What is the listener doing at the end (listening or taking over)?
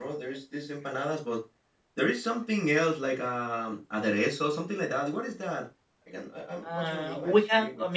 taking over